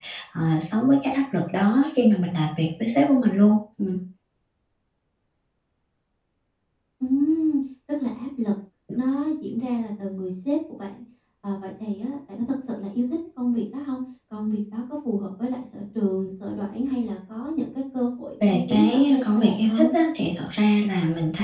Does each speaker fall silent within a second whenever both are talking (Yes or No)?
No